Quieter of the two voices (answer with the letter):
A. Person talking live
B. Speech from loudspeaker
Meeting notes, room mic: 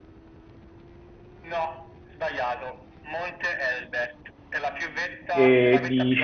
B